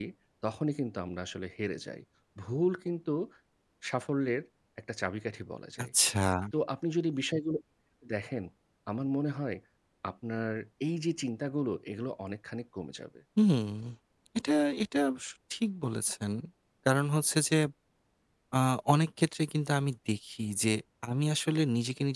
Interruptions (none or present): none